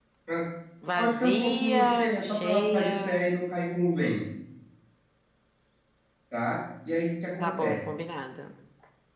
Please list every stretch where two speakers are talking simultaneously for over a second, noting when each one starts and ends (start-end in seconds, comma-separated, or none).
1.0-3.3